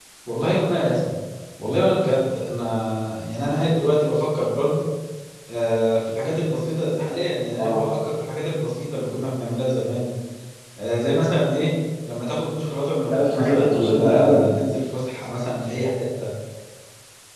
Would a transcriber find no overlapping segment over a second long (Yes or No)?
No